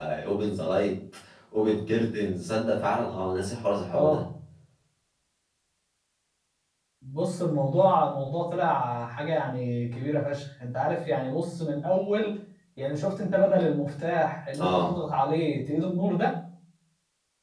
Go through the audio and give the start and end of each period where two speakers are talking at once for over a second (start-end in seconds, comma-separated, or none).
none